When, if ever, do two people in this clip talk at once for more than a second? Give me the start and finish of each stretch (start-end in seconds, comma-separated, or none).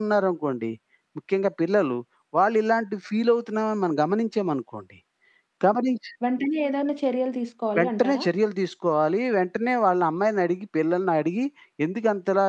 none